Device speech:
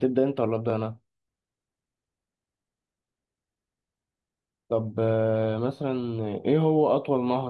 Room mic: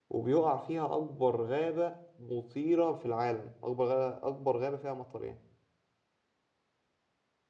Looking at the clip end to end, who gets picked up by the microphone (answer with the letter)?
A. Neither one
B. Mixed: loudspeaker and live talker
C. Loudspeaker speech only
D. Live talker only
D